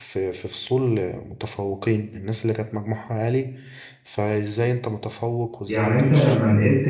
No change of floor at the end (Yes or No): No